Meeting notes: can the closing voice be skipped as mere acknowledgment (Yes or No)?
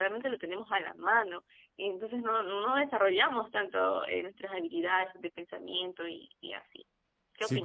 No